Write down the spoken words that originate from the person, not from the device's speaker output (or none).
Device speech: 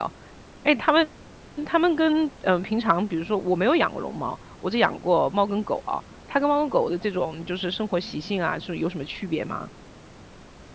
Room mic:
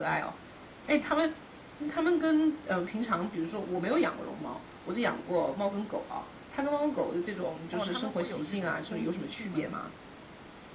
哦，他们会有这种攻击性吗？